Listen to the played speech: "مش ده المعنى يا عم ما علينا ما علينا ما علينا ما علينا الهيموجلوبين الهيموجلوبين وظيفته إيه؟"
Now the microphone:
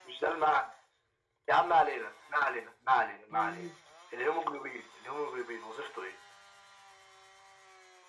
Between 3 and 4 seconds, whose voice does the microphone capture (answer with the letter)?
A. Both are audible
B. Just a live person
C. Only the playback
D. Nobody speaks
A